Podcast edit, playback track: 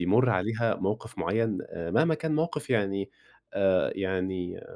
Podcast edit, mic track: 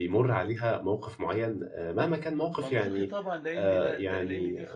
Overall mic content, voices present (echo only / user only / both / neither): both